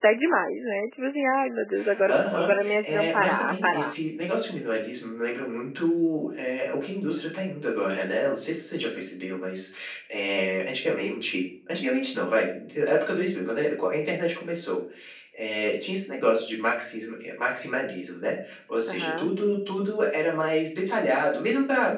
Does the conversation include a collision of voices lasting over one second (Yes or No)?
Yes